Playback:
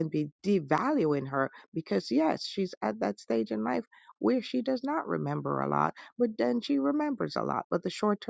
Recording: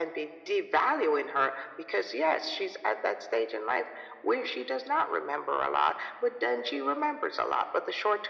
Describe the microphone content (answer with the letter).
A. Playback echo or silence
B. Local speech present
A